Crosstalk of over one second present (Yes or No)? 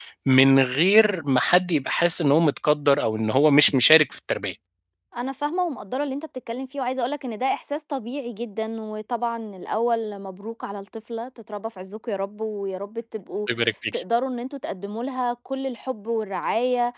No